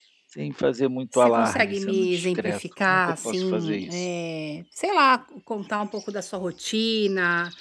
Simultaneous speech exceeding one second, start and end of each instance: 1.1-4.0

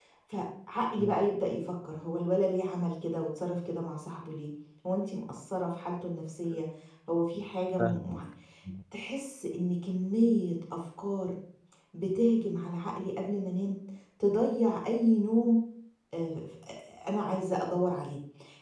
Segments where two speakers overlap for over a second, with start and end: none

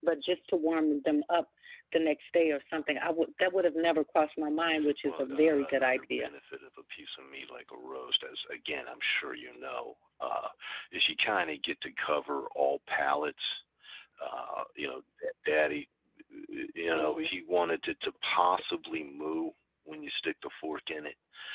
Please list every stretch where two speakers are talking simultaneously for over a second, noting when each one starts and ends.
5.0-6.3

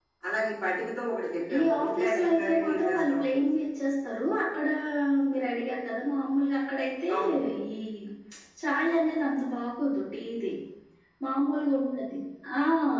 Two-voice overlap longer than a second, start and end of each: 1.6-3.5

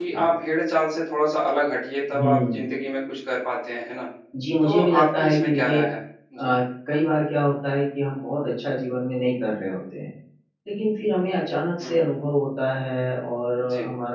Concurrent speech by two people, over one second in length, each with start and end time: 4.6-5.8

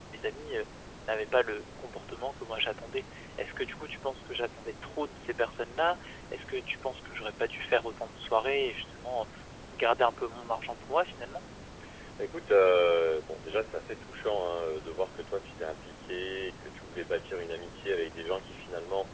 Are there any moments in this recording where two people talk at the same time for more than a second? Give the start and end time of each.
none

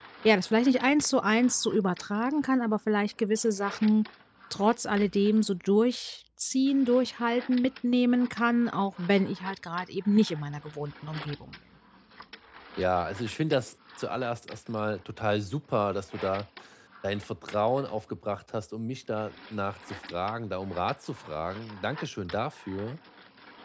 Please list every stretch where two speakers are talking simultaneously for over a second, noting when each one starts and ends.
none

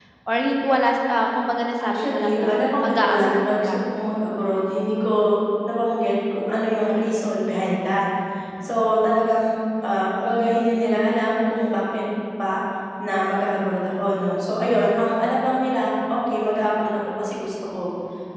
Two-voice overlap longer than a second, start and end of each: 1.9-3.8

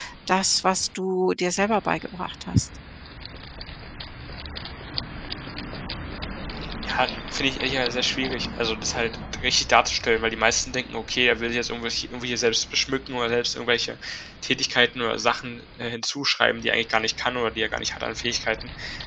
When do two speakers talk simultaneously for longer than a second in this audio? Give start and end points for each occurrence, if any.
none

